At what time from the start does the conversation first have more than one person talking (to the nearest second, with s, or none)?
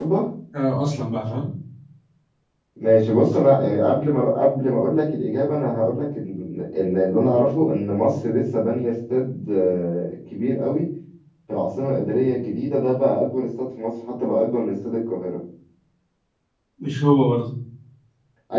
none